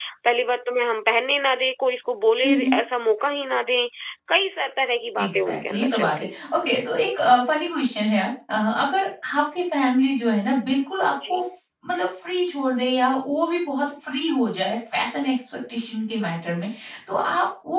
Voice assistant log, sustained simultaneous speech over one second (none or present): present